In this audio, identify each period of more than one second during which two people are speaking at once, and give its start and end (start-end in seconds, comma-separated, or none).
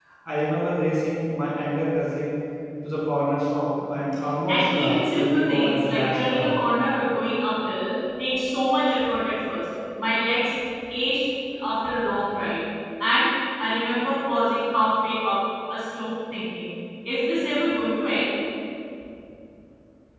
4.5-6.6